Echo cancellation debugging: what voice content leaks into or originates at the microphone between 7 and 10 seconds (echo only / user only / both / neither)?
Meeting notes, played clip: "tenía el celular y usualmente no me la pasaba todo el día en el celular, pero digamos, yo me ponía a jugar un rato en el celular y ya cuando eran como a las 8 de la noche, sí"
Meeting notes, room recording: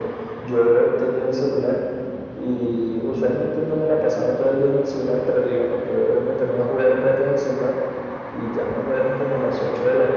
echo only